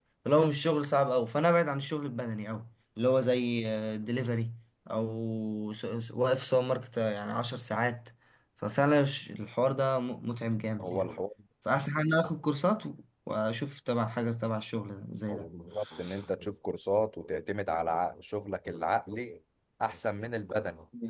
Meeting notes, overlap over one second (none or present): none